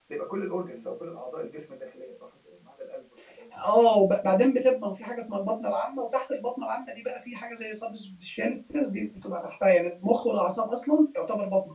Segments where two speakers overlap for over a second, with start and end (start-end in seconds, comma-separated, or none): none